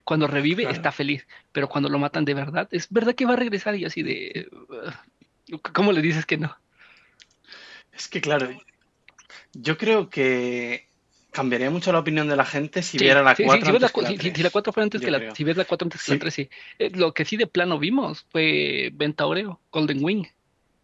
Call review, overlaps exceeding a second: present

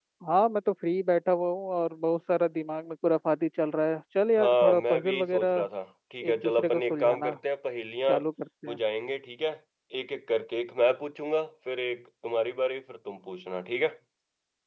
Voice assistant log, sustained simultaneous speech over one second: present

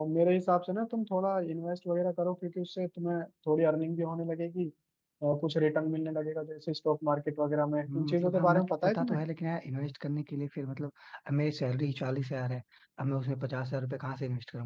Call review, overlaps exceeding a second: present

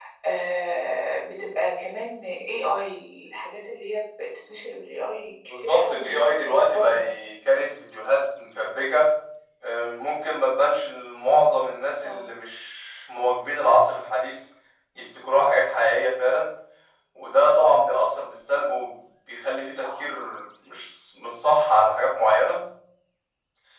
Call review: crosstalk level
present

